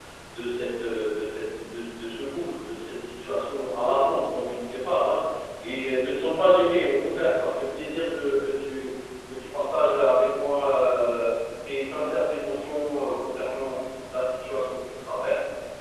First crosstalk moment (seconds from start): none

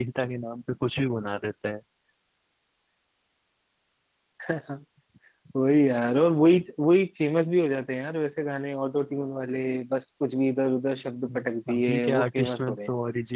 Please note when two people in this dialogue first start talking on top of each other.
11.3 s

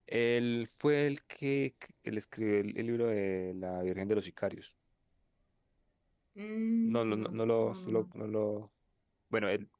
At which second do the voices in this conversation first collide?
6.8 s

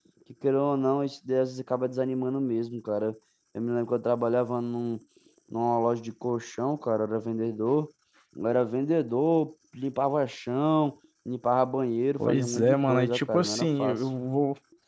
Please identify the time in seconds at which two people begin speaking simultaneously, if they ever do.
12.2 s

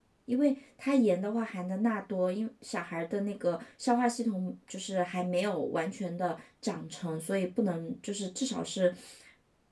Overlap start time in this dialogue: none

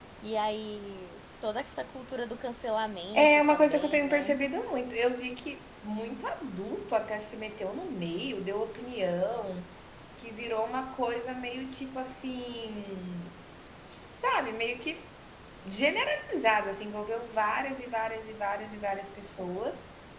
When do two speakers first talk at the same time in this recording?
3.1 s

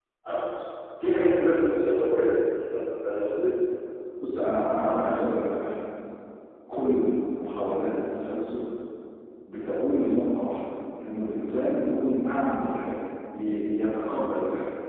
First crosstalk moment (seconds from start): none

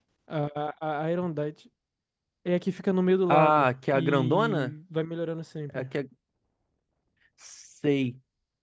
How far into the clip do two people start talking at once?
3.3 s

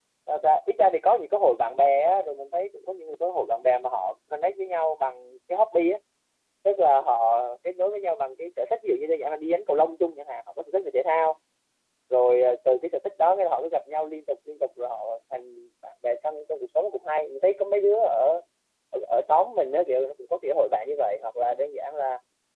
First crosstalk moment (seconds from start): none

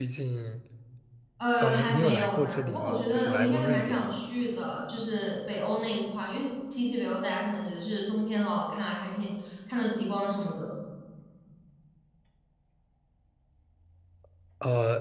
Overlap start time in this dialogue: 1.6 s

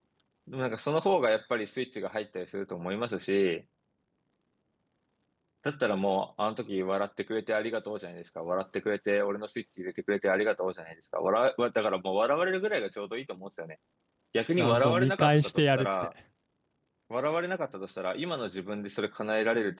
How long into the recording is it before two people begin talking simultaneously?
14.6 s

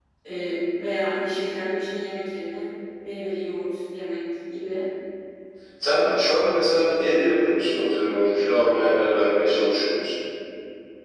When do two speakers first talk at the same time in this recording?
none

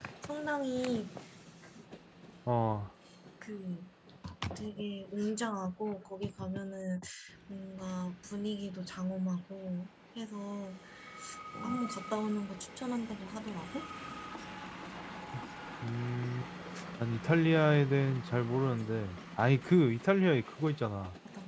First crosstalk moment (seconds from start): none

